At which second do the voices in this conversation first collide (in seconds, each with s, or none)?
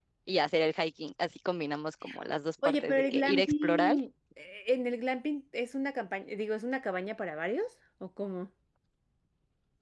2.6 s